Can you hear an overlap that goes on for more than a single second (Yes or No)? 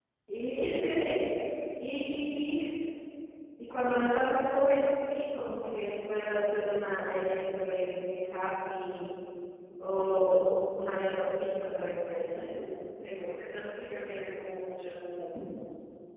No